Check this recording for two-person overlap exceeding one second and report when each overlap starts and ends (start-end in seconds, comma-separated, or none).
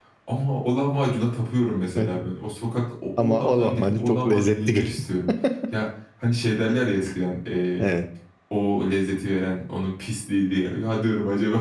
3.2-4.9